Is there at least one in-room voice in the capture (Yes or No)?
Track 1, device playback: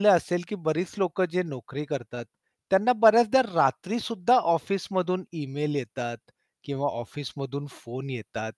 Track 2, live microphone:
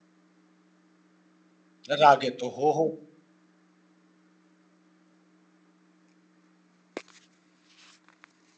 Yes